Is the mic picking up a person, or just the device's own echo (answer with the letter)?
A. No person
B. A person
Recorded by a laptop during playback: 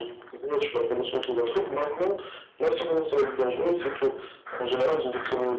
A